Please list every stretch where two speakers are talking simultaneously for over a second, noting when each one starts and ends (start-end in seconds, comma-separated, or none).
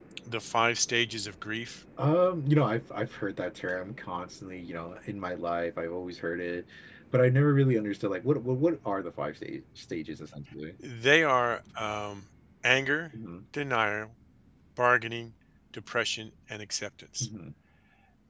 none